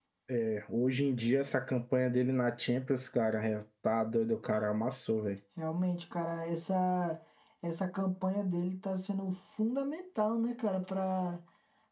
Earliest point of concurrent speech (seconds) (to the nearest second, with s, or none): none